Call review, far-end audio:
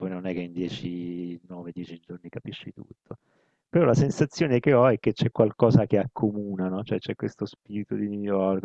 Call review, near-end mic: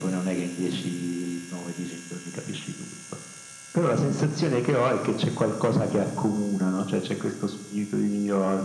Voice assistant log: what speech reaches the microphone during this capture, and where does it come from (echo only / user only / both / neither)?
echo only